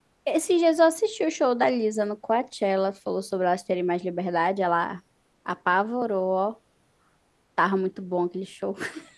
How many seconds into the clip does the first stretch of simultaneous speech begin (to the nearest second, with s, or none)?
none